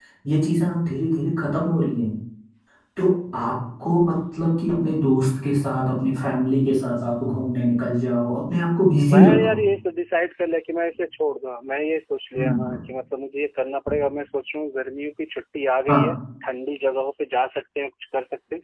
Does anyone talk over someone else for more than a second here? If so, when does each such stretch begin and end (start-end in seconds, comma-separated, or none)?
none